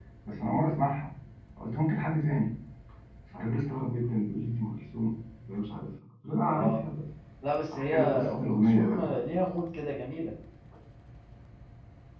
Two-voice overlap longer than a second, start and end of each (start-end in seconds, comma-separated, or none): 7.7-9.1